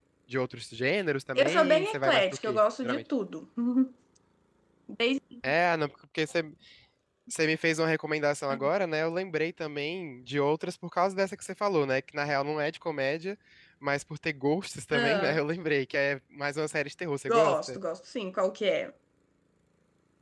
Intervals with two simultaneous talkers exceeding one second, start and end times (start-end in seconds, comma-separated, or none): 1.4-3.0